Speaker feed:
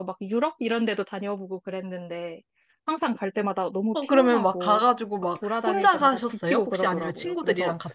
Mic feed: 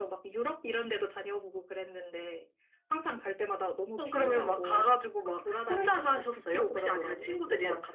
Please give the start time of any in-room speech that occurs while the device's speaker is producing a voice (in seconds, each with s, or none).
4.1 s